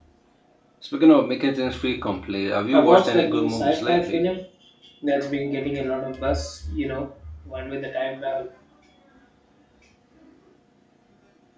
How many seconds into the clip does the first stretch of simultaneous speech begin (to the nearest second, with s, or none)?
3 s